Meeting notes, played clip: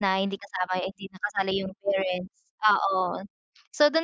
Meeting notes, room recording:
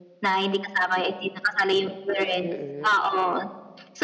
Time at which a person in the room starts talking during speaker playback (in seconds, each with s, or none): 2.4 s